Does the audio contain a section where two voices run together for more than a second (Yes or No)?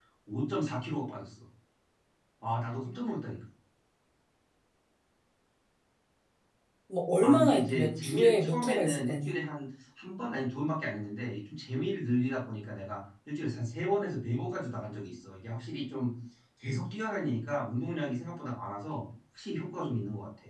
Yes